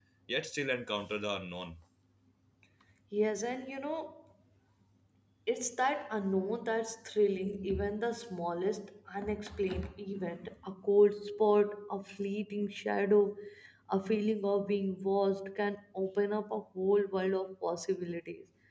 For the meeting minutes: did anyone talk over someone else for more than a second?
No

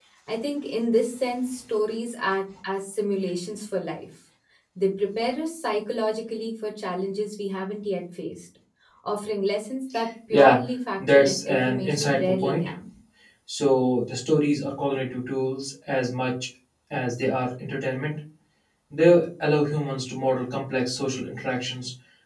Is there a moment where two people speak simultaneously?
Yes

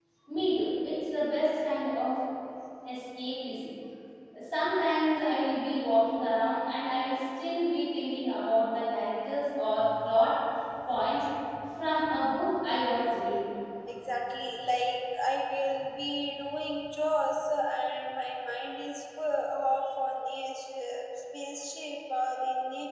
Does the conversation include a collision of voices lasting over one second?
No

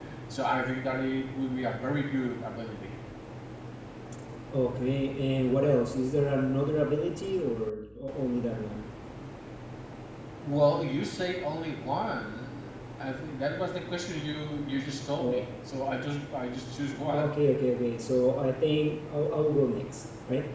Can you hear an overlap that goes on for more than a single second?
No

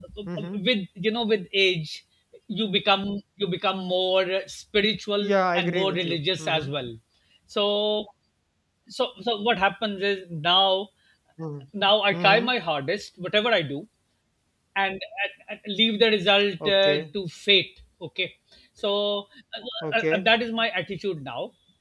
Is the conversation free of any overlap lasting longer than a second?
No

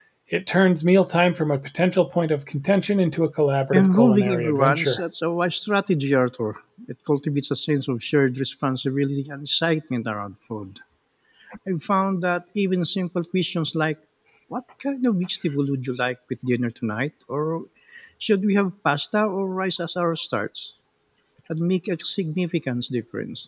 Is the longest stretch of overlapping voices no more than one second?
No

